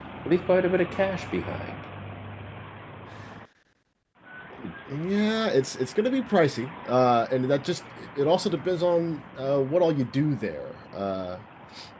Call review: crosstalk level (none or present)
none